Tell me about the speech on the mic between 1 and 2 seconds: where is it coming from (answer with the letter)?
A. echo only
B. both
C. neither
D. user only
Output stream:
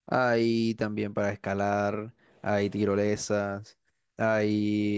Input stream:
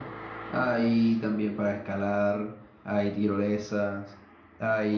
A